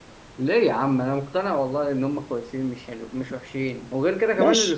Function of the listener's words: taking over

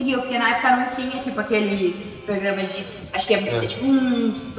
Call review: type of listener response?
listening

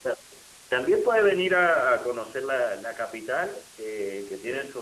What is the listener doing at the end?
listening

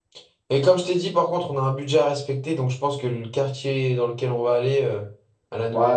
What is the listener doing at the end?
taking over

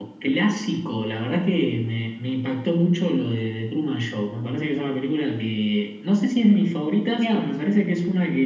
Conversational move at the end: listening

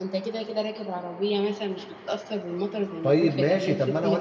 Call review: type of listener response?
taking over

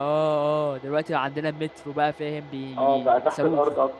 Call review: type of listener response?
taking over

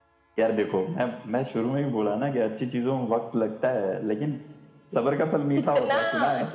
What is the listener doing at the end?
taking over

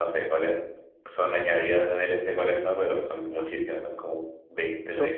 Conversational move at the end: taking over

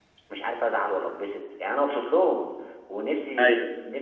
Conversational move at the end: listening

